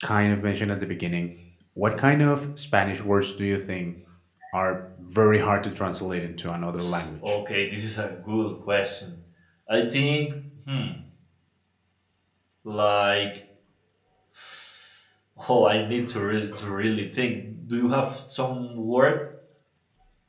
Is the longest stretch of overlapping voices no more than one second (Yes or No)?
Yes